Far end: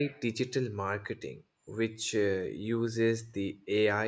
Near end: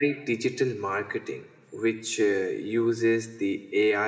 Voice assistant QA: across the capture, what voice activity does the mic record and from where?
echo only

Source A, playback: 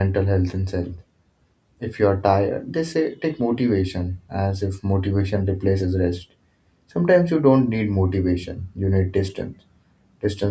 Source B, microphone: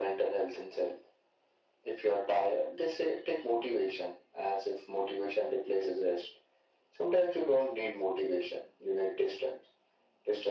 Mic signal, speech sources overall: echo only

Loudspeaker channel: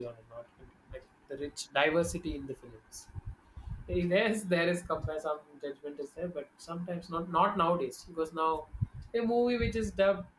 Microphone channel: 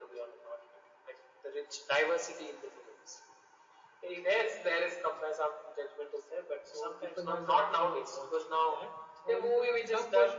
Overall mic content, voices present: both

